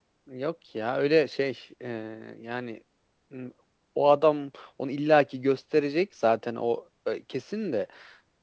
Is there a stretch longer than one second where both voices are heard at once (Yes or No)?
No